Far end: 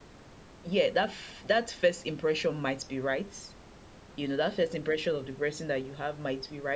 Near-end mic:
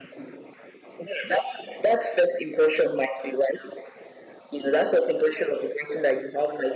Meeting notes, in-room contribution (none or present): none